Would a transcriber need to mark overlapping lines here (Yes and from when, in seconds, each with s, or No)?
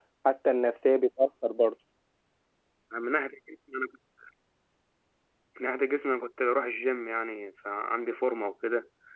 No